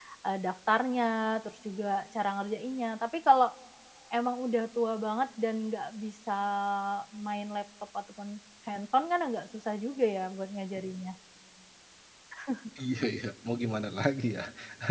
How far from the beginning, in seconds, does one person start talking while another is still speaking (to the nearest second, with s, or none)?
none